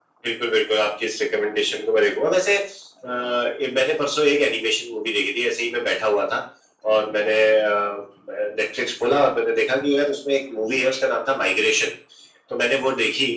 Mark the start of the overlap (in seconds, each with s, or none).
none